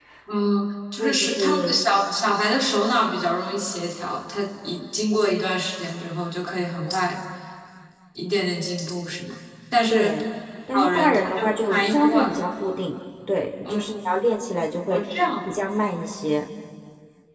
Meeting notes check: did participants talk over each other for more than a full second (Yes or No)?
Yes